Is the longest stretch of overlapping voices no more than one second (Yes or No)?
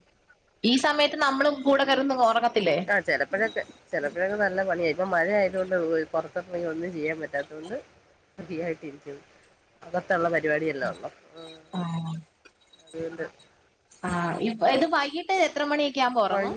Yes